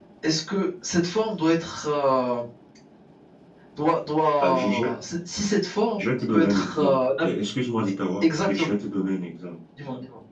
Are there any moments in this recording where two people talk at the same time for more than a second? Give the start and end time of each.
6.0-7.3

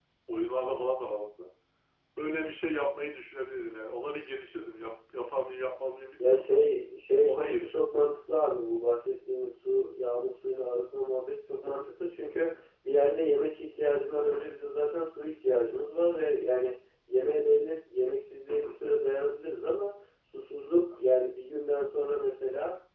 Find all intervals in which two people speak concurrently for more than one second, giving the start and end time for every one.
none

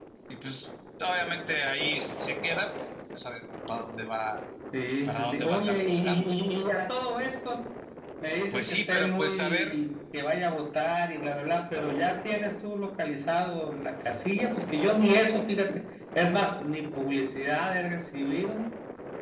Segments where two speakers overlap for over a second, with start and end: 5.0-6.3, 8.5-9.8

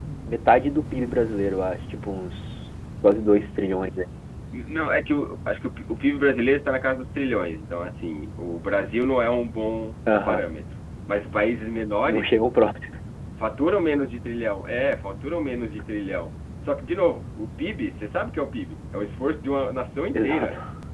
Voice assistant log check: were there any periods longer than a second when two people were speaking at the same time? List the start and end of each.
none

